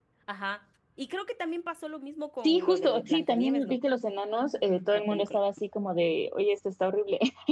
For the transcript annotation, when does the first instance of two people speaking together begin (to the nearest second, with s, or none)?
2 s